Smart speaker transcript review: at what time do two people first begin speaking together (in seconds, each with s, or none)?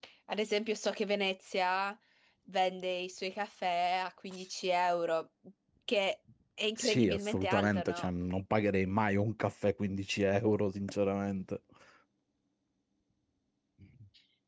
6.8 s